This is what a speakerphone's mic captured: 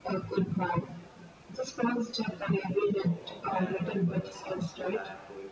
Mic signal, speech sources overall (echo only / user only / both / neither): both